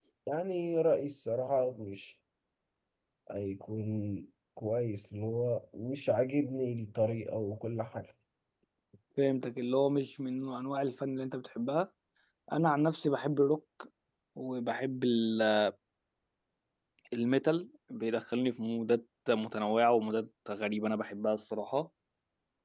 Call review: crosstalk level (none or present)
none